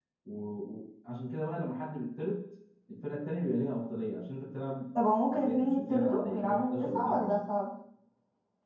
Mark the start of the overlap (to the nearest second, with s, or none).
5 s